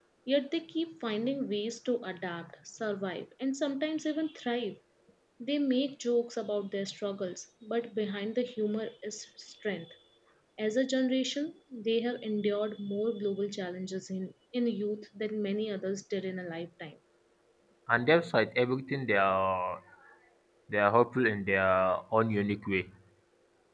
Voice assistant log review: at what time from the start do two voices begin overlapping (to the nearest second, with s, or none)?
none